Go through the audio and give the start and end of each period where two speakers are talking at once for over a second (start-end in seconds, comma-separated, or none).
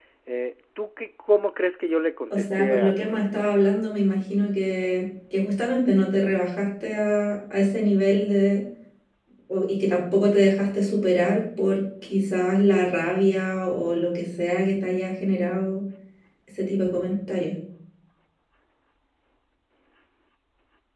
2.3-3.5